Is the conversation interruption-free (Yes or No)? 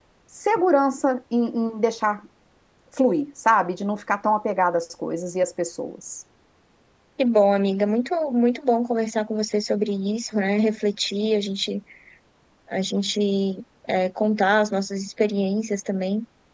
Yes